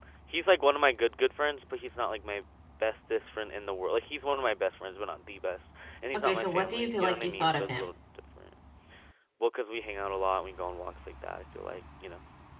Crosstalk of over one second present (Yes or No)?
Yes